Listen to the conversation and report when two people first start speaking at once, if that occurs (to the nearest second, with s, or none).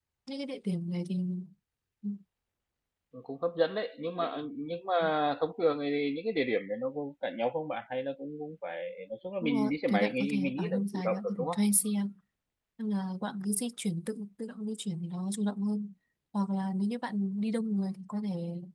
9 s